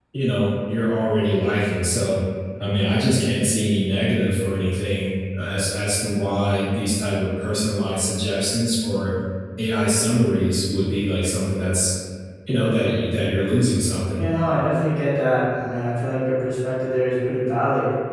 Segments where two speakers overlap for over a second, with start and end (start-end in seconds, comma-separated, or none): none